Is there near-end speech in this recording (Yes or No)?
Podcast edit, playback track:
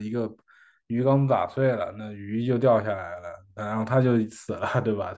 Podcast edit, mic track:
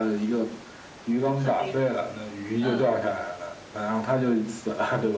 Yes